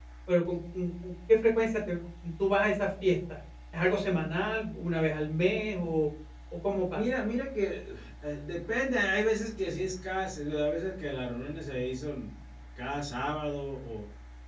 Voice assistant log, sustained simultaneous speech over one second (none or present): none